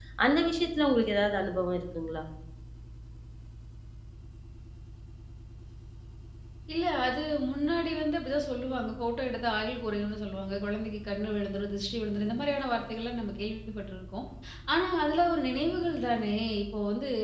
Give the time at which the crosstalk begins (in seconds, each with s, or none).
none